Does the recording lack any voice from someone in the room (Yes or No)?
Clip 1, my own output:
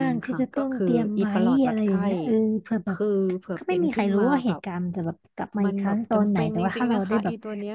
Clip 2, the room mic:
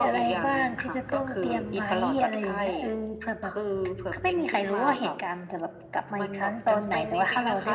Yes